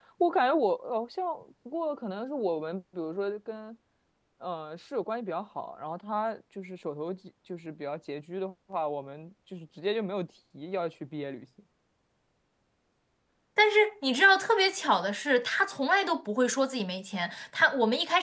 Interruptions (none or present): none